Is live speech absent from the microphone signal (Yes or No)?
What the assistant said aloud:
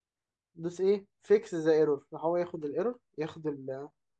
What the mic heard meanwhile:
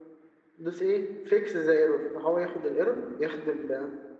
Yes